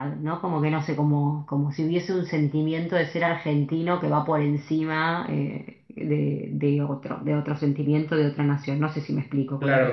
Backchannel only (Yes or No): No